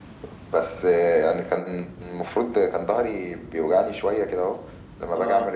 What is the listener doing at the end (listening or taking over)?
listening